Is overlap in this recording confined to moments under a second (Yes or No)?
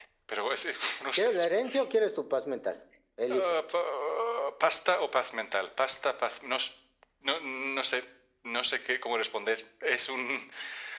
Yes